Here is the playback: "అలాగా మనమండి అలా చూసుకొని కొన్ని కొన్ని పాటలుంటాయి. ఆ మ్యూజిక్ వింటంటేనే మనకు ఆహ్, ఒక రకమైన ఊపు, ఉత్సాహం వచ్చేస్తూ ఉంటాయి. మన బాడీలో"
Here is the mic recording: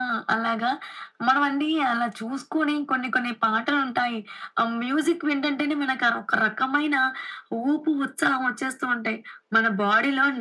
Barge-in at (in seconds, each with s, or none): none